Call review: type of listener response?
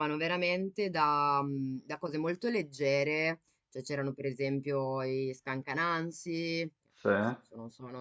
listening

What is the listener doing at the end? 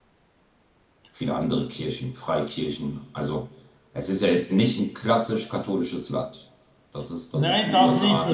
taking over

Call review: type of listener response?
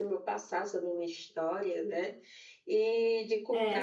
taking over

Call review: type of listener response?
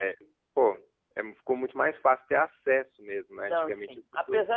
taking over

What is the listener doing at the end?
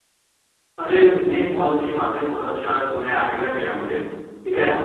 listening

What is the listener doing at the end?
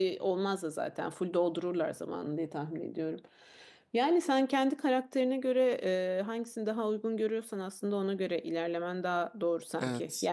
listening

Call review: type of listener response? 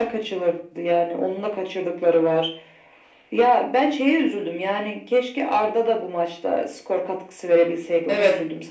taking over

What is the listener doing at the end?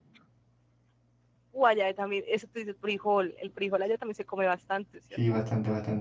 taking over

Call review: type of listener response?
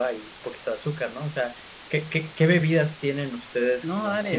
taking over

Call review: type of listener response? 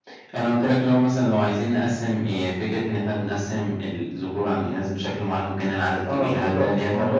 taking over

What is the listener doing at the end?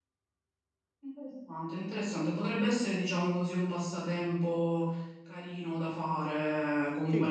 listening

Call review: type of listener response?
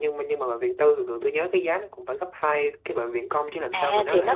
taking over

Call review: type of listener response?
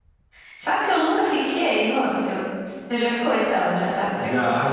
taking over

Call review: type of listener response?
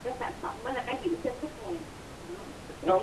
taking over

